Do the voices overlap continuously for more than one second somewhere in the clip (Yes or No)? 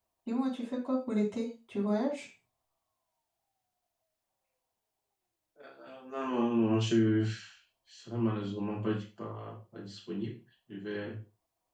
No